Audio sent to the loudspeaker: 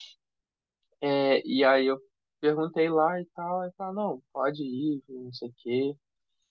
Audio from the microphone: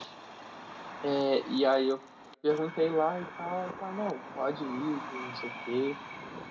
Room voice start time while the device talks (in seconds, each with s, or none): none